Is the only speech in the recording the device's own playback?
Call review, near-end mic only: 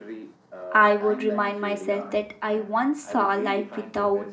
No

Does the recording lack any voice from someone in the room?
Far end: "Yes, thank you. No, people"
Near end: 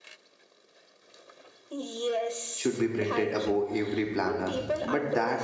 No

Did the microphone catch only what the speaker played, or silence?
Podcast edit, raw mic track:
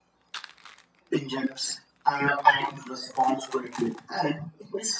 Yes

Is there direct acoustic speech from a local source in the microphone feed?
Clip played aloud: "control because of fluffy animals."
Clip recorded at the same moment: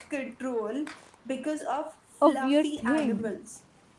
Yes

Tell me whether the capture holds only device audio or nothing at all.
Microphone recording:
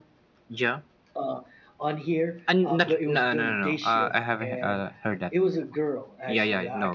Yes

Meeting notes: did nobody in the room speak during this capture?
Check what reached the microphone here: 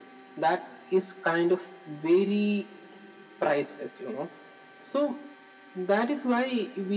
Yes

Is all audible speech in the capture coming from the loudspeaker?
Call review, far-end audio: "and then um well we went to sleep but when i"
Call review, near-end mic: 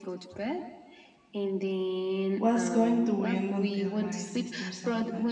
No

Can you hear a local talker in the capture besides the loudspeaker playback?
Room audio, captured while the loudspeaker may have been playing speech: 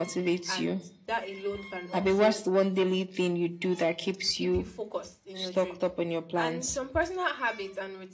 Yes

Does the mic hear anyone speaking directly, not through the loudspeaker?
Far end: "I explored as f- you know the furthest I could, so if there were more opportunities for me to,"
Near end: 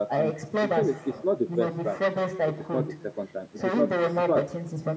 Yes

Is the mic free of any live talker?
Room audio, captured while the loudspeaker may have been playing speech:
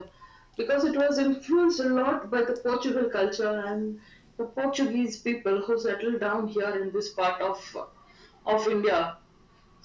Yes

